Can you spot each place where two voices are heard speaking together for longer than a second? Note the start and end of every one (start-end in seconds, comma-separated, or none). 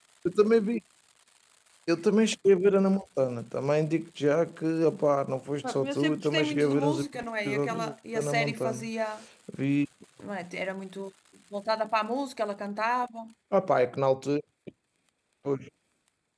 5.6-7.0, 7.5-8.9